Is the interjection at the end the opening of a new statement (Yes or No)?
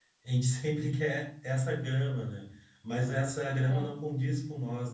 No